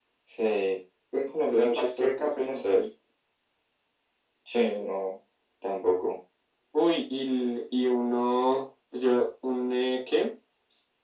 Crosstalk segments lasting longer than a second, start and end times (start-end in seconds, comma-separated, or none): 1.5-2.8